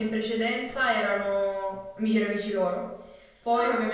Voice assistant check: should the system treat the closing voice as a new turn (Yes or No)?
No